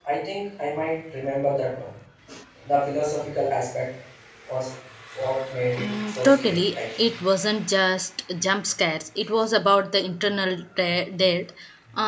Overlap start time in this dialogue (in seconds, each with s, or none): 5.8 s